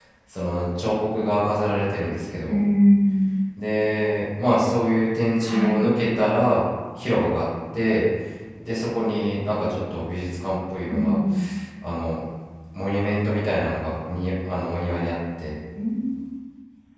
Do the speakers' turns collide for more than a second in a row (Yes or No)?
No